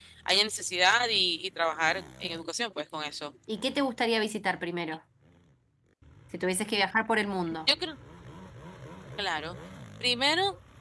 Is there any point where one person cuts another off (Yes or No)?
No